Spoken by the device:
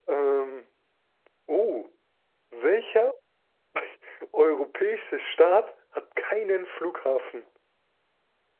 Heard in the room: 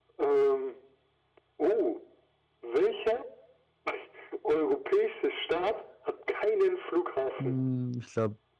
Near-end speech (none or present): present